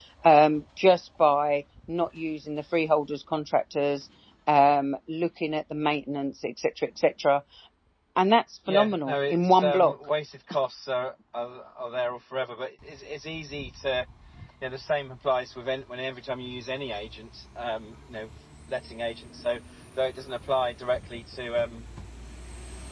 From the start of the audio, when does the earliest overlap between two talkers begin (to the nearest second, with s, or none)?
9 s